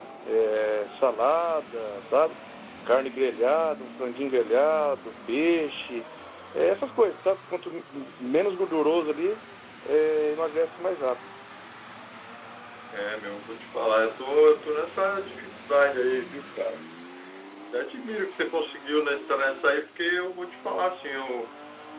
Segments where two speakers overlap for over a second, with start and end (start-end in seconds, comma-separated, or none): none